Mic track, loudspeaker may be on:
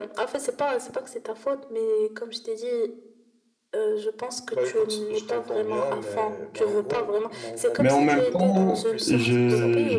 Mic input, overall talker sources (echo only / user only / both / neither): both